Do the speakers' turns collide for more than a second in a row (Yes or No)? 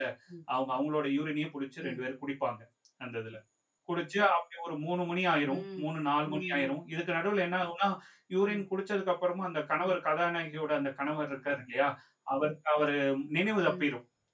No